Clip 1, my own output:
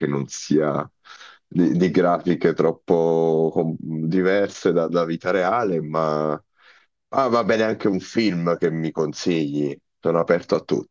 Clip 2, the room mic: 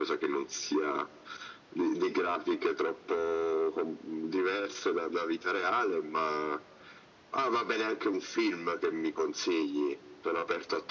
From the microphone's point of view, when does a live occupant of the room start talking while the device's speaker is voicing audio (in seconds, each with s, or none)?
none